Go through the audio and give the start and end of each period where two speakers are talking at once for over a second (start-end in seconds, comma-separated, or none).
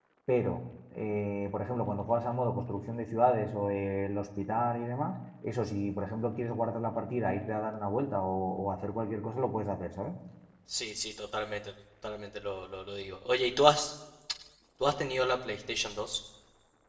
none